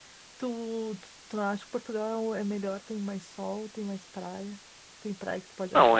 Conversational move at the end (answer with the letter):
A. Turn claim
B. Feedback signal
A